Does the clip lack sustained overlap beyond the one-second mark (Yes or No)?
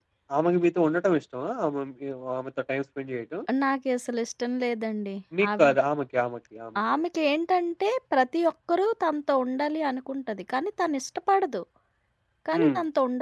Yes